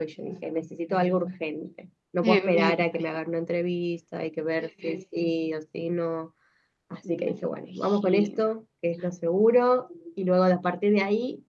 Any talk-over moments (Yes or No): Yes